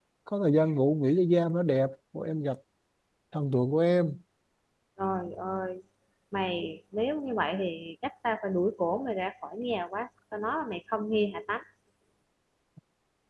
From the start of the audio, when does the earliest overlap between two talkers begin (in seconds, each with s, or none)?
none